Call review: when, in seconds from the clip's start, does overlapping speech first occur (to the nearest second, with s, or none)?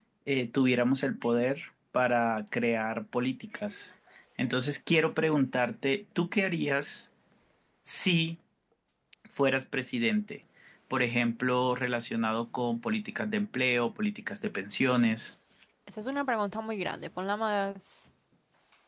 none